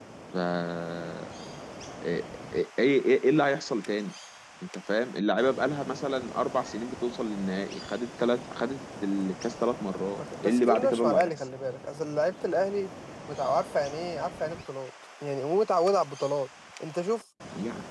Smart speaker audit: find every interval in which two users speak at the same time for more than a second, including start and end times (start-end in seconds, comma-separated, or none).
10.2-11.5